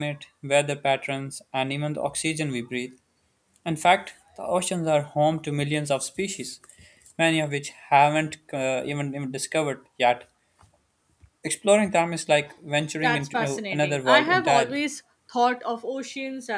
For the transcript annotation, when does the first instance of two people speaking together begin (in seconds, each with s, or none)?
13.0 s